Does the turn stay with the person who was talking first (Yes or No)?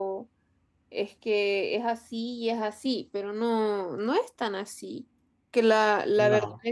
Yes